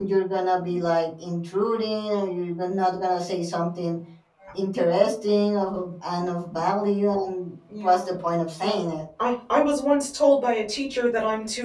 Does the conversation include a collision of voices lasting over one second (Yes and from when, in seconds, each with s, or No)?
No